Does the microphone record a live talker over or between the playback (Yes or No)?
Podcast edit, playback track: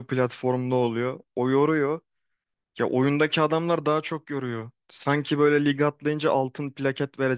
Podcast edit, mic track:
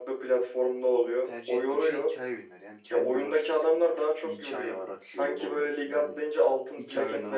Yes